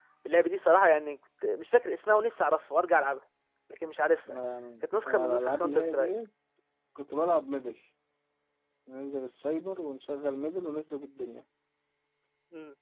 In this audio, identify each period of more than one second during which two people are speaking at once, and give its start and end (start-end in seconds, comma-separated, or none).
4.8-6.1